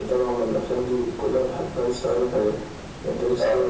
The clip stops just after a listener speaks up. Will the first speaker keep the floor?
Yes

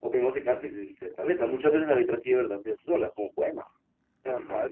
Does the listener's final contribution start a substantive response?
Yes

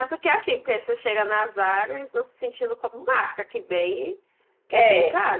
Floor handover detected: Yes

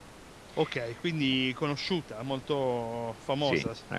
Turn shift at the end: Yes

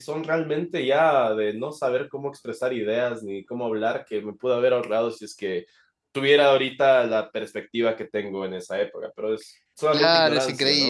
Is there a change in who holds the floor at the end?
Yes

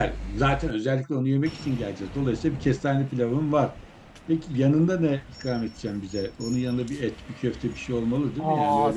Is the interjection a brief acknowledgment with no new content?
No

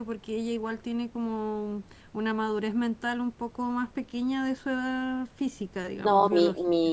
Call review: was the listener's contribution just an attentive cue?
No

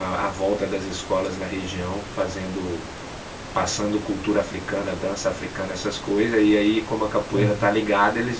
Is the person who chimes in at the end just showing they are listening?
Yes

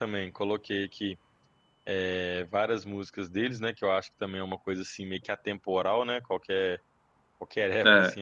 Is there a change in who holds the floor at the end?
No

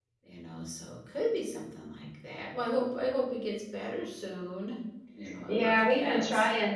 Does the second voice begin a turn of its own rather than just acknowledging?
Yes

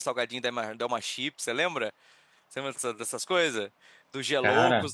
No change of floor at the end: Yes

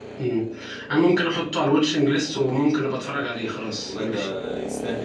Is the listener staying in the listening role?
No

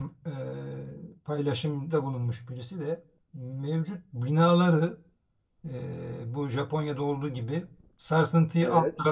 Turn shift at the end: No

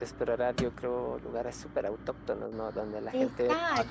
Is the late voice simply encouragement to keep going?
No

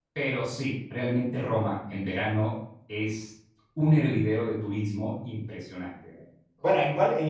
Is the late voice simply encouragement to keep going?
No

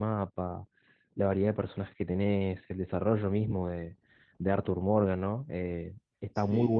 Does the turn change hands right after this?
No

